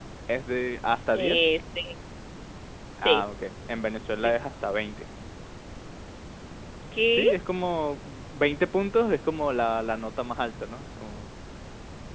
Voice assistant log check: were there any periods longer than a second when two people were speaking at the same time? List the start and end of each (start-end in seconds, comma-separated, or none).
none